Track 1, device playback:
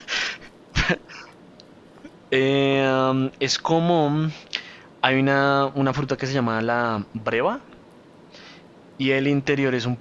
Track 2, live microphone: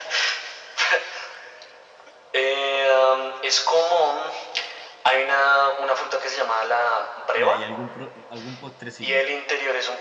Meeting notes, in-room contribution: present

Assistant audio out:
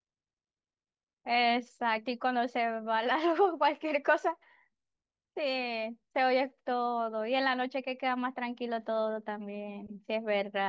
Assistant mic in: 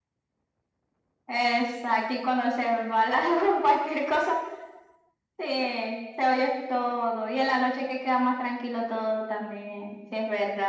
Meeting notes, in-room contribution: none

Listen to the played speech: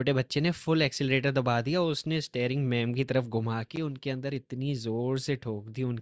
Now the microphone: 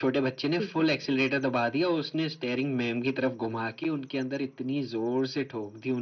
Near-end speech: present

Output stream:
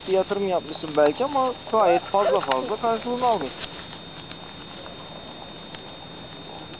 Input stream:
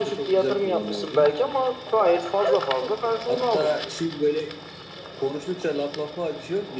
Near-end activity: present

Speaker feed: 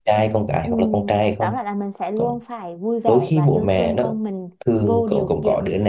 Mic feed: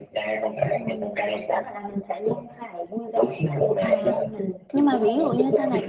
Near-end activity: present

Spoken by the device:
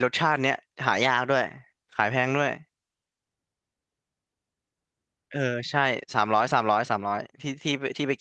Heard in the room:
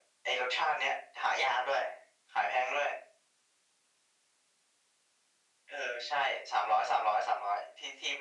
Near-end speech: none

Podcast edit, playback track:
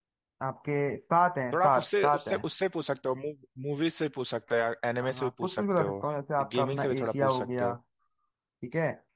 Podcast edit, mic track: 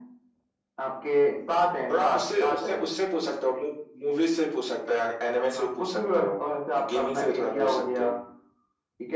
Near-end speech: none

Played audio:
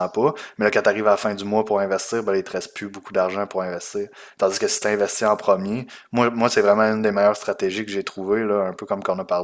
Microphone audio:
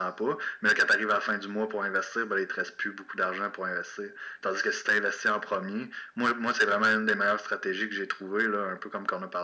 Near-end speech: none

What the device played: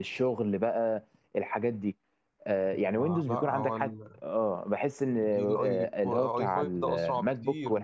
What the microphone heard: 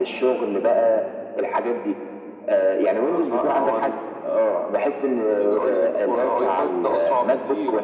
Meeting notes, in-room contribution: none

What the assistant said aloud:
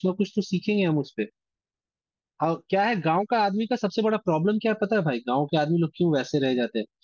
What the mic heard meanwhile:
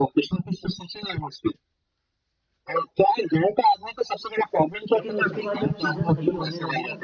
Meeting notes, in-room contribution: present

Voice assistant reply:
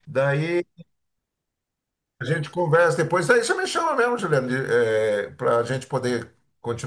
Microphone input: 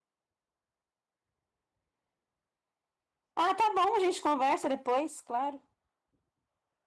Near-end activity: present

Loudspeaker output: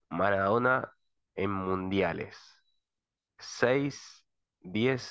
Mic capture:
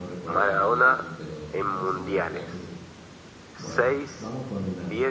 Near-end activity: present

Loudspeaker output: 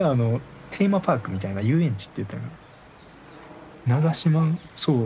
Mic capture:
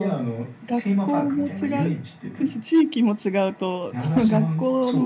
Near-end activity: present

